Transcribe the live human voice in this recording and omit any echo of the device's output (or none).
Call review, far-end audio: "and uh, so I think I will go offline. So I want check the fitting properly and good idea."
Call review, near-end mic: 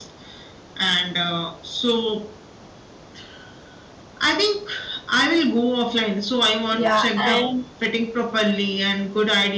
Yeah, and